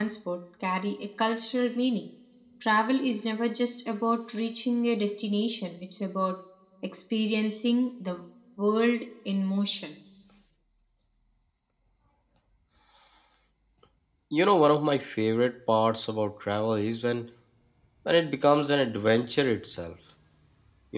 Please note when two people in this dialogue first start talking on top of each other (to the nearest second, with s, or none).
none